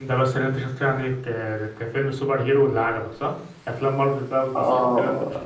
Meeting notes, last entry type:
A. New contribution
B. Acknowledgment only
A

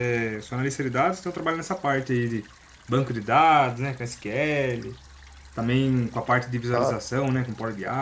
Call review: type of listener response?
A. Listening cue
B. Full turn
A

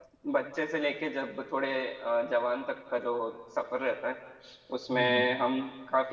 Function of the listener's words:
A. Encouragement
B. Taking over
A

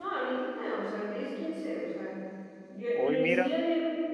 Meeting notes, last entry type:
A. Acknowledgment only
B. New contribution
A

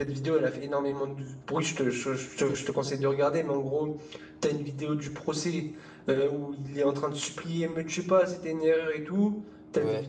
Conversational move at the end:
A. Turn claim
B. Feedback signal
B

